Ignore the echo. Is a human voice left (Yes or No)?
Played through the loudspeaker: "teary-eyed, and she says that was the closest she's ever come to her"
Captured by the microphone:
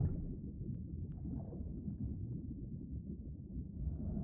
No